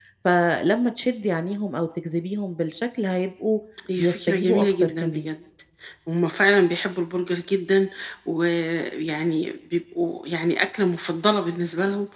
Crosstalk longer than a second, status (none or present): present